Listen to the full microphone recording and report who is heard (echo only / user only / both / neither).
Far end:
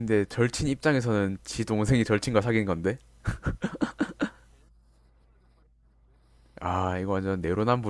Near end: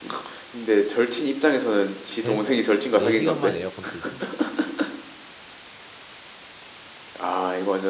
both